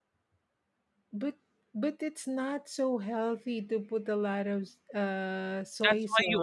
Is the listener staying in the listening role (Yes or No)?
No